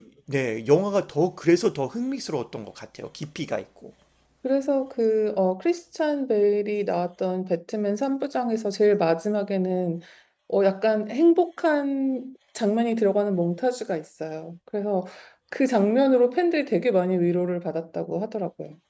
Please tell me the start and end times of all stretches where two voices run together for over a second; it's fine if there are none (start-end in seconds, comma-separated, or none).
none